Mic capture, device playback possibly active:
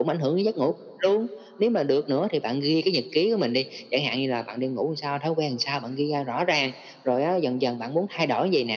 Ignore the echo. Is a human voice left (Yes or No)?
No